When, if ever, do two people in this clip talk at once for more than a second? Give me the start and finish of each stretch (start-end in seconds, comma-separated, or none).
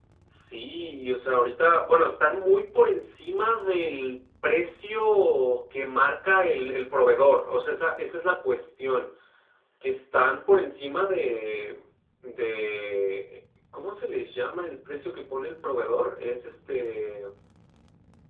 none